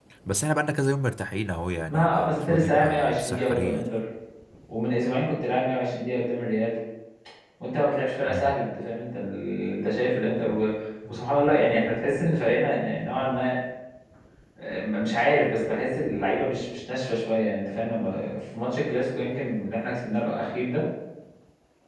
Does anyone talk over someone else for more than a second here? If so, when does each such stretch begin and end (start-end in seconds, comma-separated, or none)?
1.9-3.9